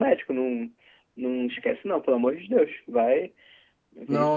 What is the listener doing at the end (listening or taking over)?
taking over